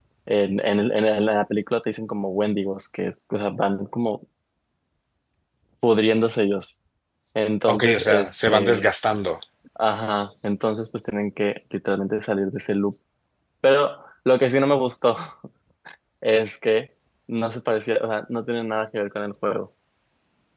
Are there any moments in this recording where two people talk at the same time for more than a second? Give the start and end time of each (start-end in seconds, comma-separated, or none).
7.7-8.9